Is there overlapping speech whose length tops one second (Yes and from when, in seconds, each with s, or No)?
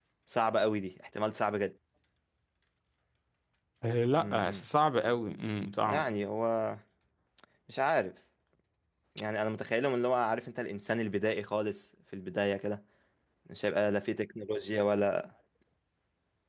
No